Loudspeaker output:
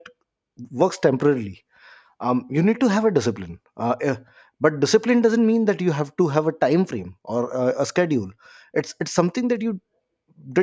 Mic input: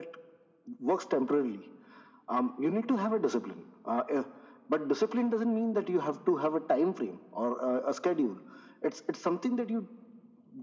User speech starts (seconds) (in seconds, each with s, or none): none